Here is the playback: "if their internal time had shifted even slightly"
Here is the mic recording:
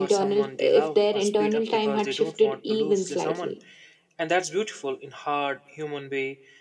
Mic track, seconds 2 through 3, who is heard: both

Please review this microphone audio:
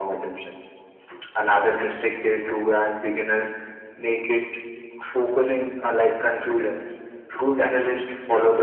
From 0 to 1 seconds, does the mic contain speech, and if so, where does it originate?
echo only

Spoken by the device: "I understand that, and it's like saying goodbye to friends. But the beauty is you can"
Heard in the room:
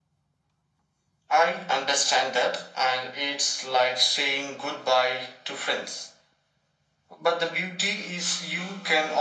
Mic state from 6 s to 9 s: echo only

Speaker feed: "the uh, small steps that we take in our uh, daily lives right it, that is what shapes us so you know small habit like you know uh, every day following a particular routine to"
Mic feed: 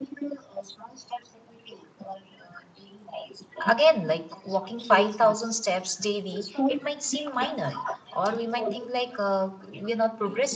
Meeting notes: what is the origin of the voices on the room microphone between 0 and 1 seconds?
echo only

